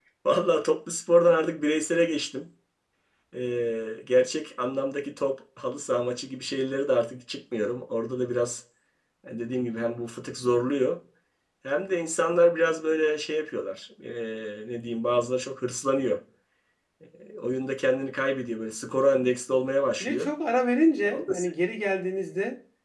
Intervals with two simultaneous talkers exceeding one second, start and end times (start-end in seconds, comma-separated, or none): none